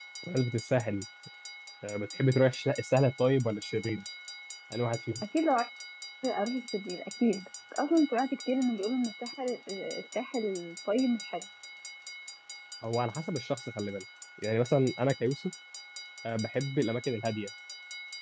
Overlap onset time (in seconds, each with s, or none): none